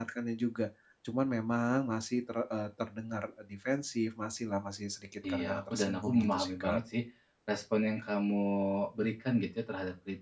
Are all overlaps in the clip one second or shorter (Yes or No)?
No